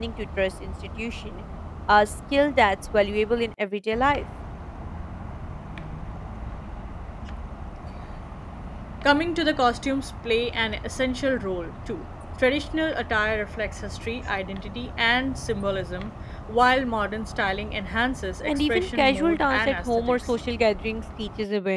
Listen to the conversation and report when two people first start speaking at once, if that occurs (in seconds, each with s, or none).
18.5 s